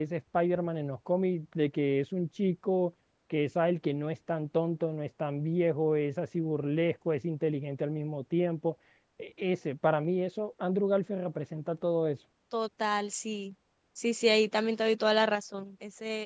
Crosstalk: none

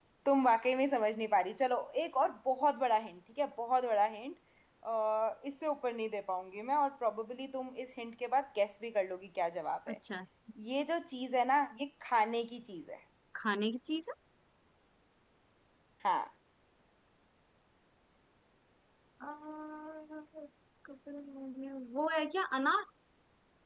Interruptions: none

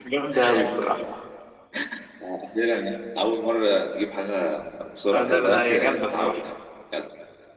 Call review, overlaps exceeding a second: present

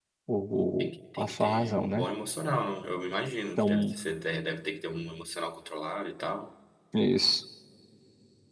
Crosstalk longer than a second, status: present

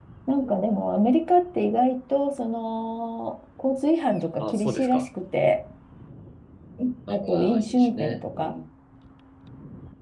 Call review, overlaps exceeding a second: present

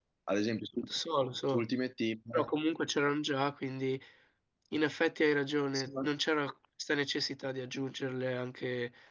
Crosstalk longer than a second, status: none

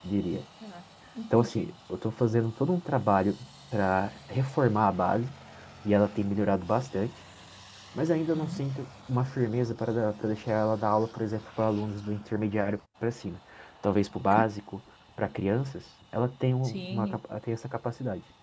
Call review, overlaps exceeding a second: none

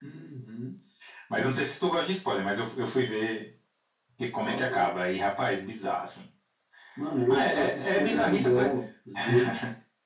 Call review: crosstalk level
present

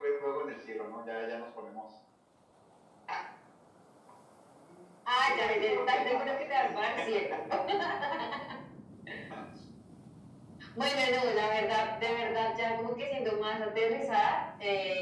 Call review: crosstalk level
present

